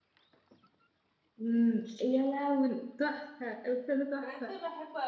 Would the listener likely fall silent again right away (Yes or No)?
No